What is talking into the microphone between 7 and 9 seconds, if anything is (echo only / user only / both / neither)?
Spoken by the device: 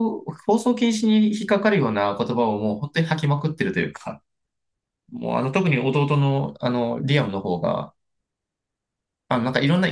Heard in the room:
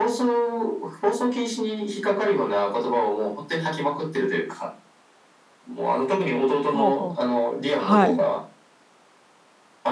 both